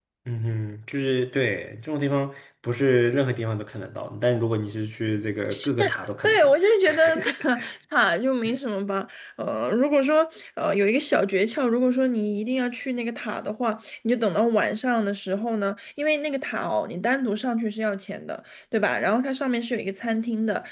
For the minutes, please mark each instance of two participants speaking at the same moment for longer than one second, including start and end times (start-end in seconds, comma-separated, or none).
none